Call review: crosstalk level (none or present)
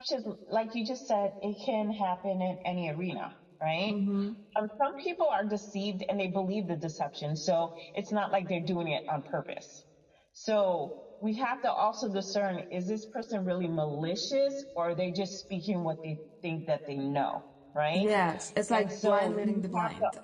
present